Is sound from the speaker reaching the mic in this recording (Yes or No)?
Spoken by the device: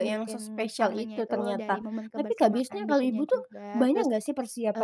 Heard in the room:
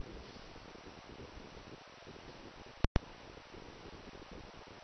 No